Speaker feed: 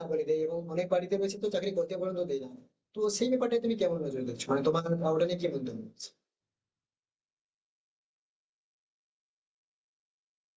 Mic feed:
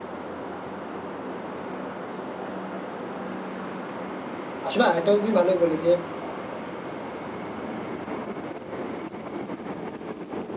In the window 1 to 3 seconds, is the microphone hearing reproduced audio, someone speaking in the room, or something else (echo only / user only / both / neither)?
neither